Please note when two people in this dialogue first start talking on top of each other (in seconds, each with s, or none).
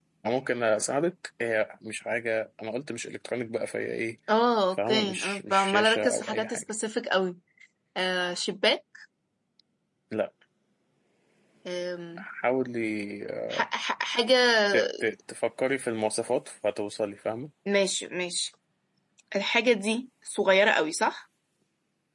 4.7 s